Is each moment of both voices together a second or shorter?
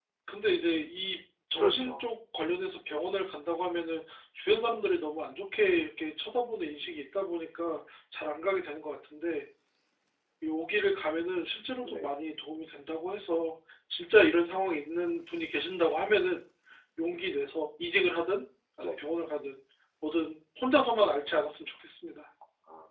Yes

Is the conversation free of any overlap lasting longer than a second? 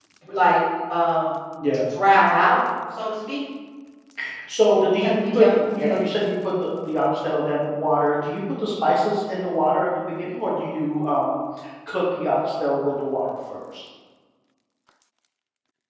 No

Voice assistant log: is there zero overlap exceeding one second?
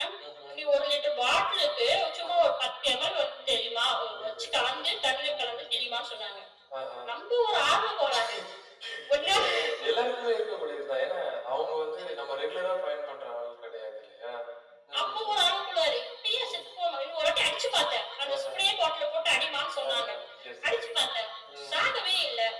No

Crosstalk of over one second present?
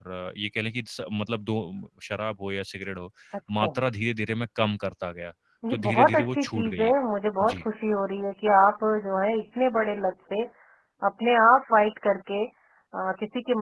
Yes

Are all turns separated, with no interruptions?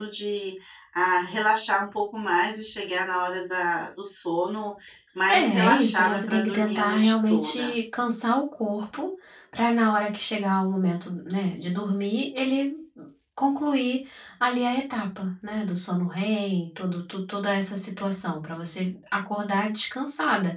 No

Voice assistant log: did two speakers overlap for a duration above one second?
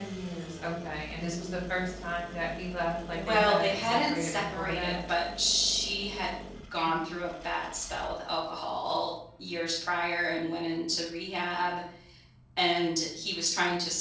Yes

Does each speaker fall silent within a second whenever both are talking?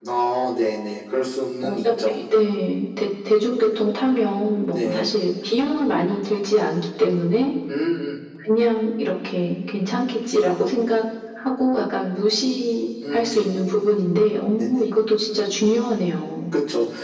Yes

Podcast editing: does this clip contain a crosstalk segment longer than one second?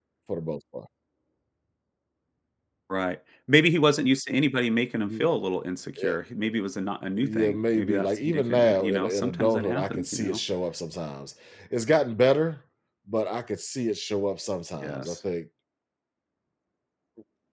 Yes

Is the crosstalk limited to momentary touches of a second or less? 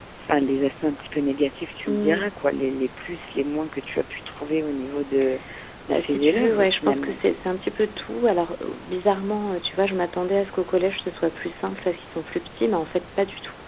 No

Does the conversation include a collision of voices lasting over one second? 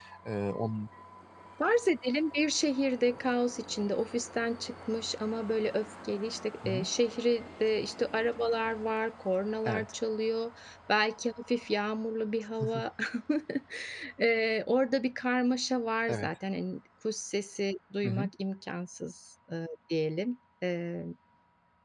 No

